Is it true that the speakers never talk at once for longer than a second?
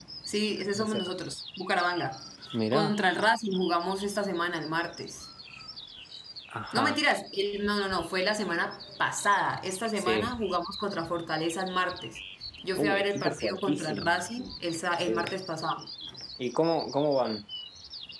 No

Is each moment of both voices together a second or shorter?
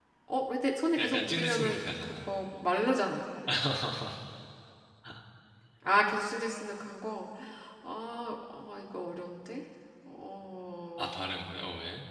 No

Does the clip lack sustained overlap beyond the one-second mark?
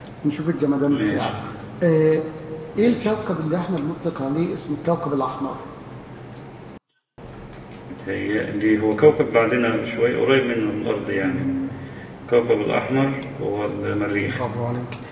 Yes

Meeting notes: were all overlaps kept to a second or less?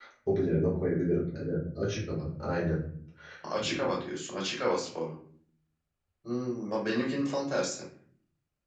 Yes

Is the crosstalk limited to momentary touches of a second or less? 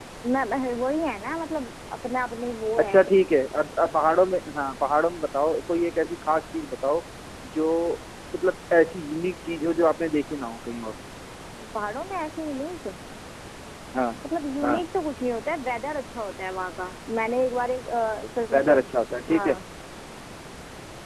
Yes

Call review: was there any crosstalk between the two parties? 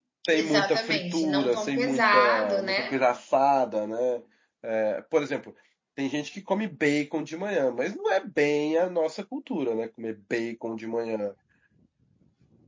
Yes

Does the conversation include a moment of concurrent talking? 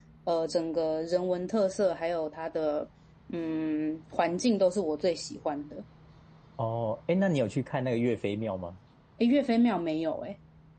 No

